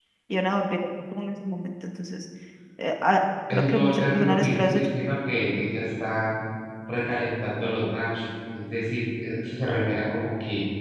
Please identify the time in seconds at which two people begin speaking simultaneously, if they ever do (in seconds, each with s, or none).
3.5 s